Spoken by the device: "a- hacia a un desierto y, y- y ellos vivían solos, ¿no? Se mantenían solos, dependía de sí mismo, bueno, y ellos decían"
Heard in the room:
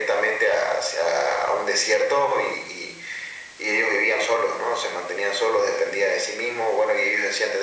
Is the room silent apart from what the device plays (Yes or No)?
Yes